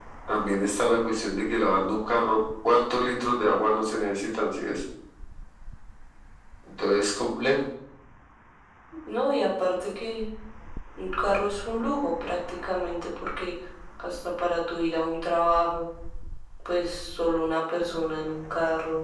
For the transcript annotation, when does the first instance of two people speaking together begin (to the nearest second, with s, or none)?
none